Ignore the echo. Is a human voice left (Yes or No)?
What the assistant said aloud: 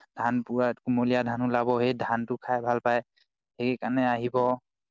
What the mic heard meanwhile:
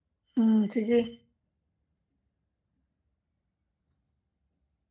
Yes